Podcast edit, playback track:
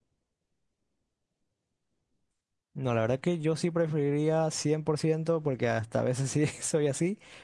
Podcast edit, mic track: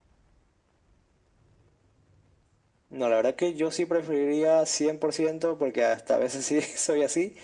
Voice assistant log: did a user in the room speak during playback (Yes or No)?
No